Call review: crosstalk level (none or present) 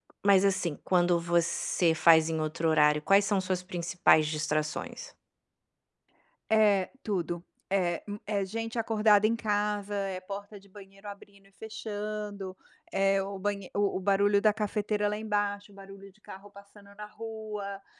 none